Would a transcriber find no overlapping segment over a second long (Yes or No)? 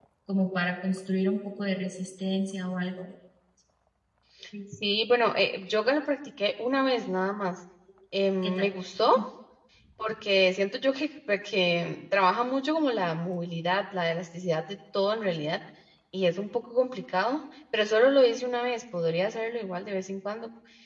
Yes